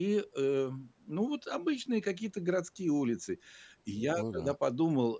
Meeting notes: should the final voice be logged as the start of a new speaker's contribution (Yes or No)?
No